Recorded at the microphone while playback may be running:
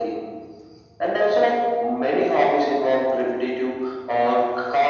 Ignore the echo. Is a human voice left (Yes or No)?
No